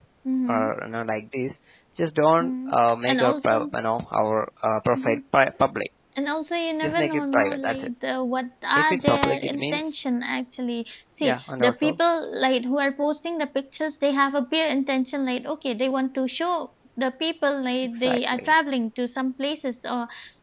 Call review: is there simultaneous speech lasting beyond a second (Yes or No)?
Yes